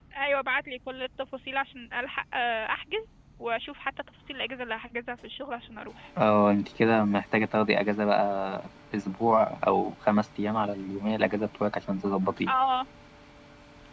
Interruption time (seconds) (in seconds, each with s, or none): none